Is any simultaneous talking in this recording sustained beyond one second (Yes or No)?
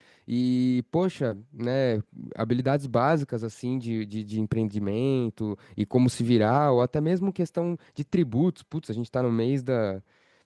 No